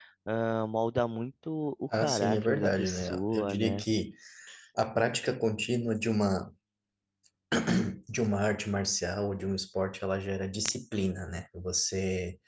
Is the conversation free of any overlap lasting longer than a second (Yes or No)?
No